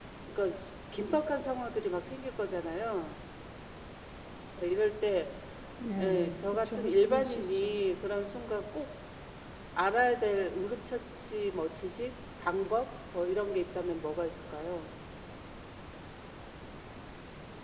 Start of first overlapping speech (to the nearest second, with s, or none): 6 s